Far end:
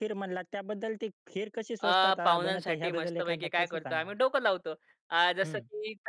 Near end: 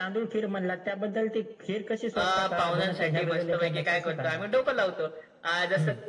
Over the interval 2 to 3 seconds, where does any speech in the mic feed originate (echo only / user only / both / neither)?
echo only